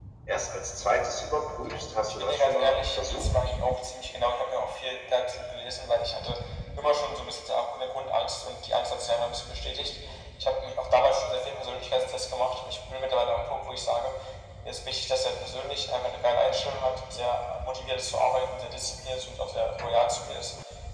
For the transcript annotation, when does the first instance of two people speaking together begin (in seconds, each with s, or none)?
2.1 s